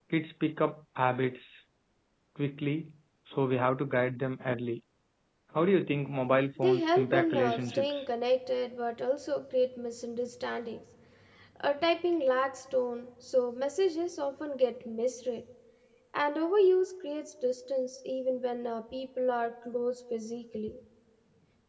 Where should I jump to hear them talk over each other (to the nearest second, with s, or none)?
7 s